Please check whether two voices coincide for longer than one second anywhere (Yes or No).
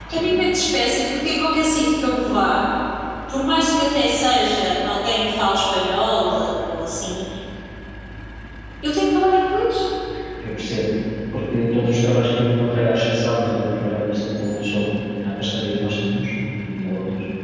No